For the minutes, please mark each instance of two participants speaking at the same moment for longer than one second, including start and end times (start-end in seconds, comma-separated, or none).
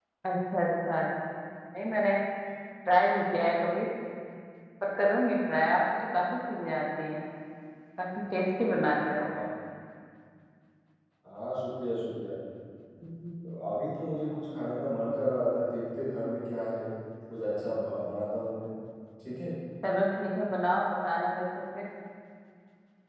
none